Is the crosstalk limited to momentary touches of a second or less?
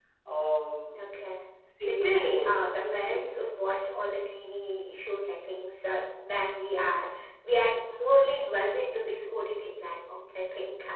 No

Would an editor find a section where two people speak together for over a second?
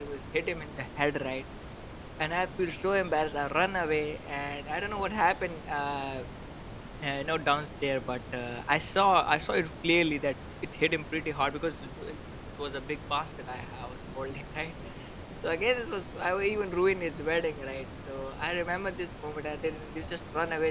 No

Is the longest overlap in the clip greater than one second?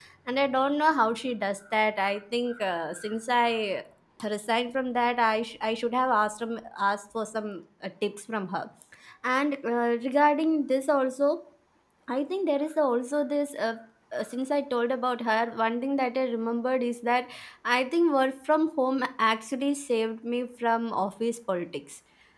No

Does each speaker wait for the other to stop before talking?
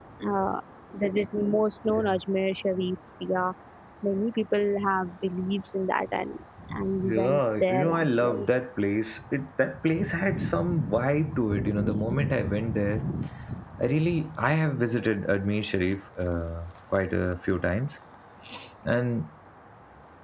No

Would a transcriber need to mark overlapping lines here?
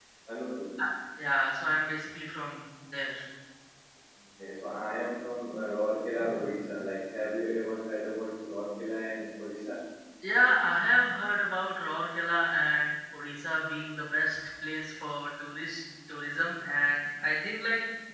No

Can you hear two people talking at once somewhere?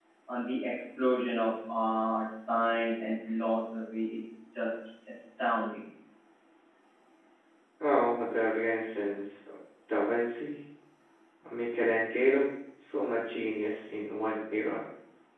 No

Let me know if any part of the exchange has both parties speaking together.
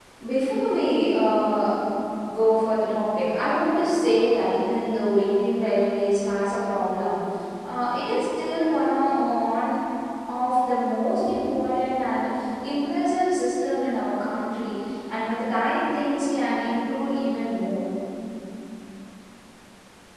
No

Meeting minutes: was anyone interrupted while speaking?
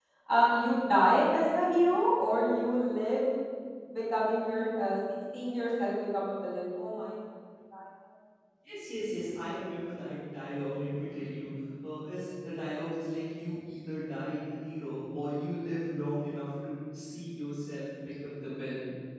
No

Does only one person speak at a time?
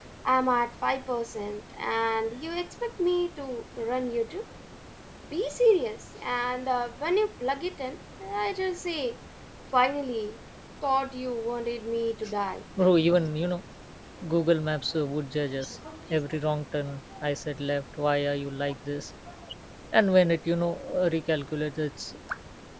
Yes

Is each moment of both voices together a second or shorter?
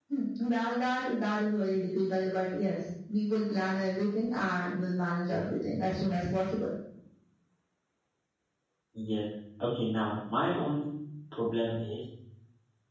Yes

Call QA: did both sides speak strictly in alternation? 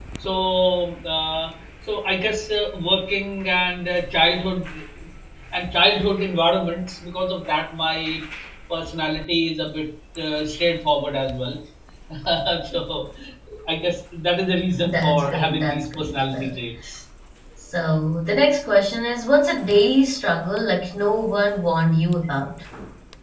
No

